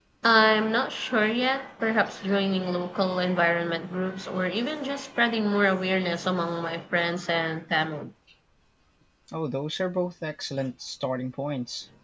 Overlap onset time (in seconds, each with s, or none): none